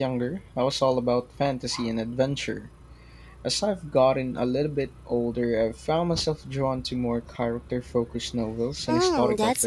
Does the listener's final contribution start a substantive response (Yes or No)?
Yes